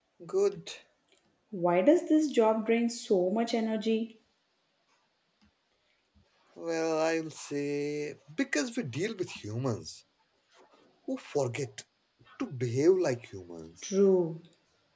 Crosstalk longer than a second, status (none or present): none